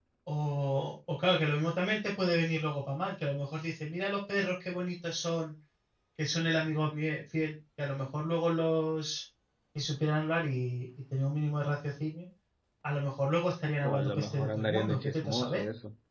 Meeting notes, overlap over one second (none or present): present